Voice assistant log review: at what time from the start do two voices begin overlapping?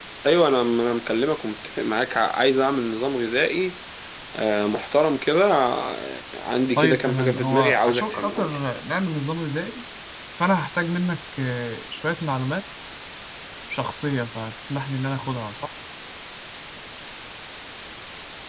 6.8 s

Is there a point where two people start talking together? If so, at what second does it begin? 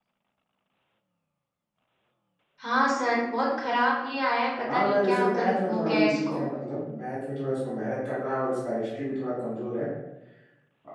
4.7 s

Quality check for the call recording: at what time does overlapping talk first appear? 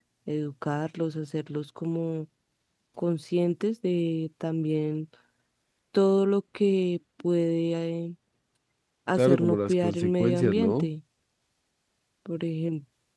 9.2 s

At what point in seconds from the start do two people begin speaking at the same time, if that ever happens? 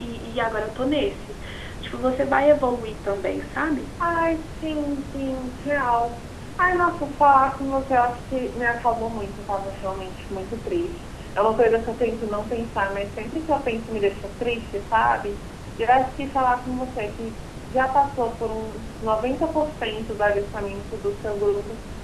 none

